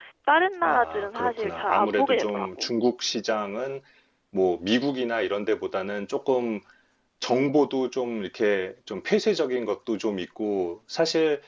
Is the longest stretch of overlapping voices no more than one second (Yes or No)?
No